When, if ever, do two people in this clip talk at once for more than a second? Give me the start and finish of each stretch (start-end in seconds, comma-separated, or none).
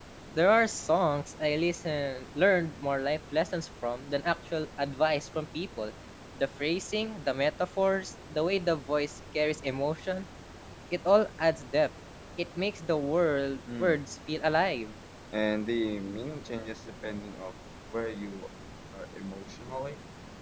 none